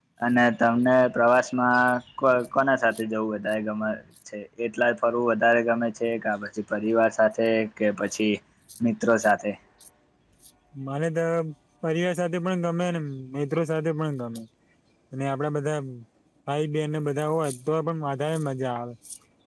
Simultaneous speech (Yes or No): No